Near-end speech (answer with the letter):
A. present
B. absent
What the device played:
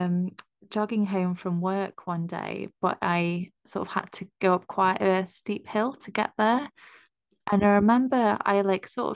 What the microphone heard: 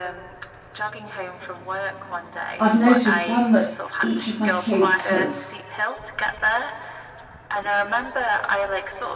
A